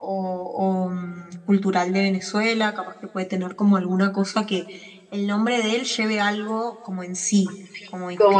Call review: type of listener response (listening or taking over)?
taking over